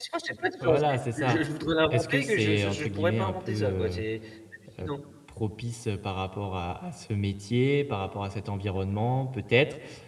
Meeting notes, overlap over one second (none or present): present